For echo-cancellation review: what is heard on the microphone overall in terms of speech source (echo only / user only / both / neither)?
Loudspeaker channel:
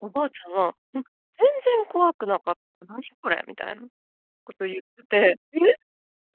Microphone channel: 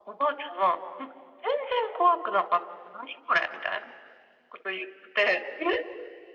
echo only